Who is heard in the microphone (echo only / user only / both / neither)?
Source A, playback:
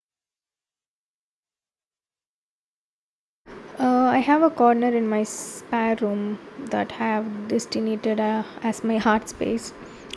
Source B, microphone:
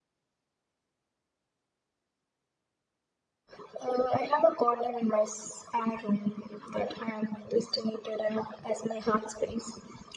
echo only